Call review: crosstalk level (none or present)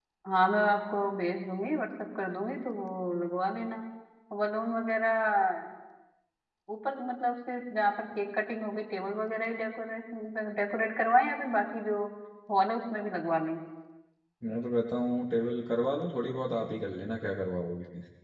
none